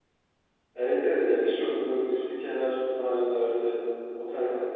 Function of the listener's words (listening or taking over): listening